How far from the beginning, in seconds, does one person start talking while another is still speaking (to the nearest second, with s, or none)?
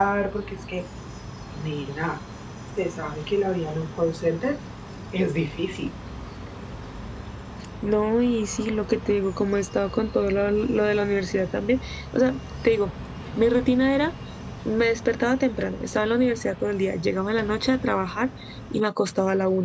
none